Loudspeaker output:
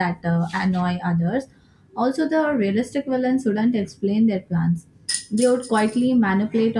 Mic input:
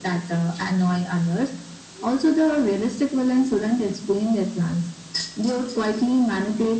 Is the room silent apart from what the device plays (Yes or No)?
Yes